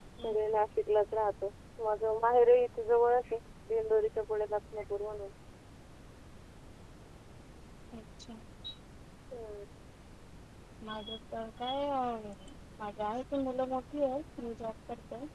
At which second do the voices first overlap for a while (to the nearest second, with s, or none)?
none